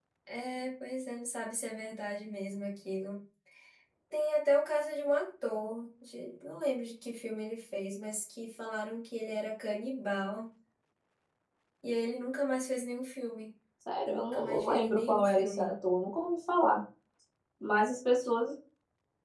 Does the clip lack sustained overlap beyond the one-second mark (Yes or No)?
No